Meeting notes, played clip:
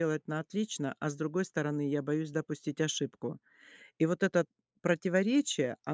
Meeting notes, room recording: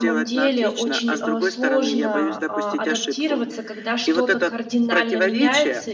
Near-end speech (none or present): present